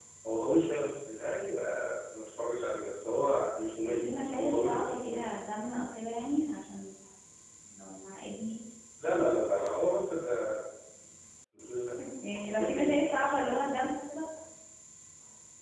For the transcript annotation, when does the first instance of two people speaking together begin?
4 s

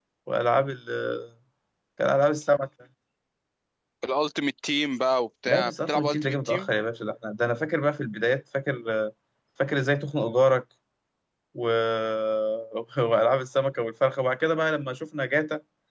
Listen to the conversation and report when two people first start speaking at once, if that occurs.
5 s

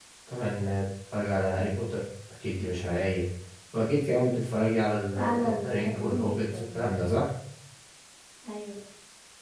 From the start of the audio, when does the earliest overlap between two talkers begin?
5 s

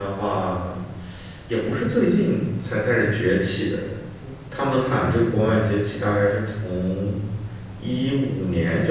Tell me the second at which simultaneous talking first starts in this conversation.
none

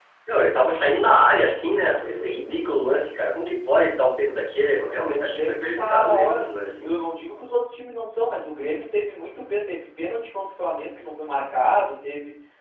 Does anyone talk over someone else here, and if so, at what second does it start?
5 s

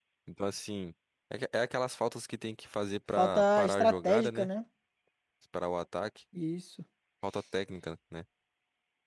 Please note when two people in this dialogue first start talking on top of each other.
3 s

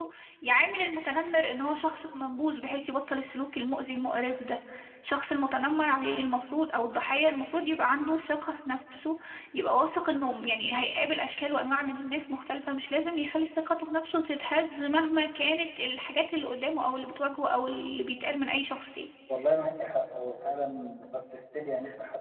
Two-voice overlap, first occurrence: none

